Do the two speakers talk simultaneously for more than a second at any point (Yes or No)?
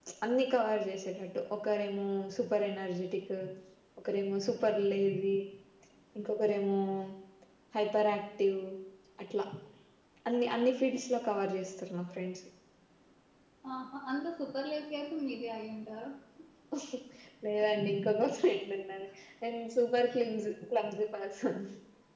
No